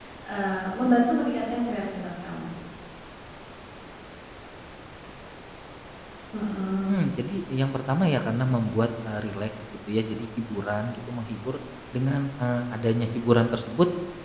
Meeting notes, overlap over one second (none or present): none